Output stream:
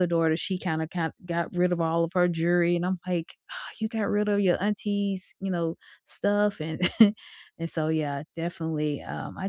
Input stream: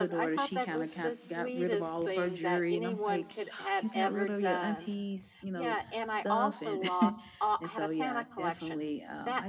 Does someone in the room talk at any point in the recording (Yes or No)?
Yes